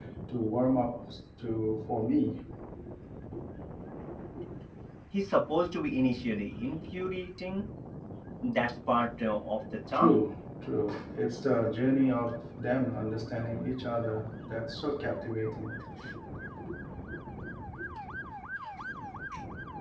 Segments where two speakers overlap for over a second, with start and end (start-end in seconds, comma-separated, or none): none